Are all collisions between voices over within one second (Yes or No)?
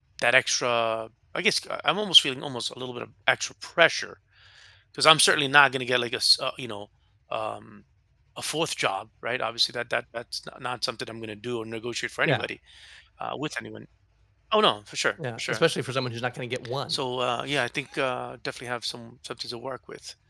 Yes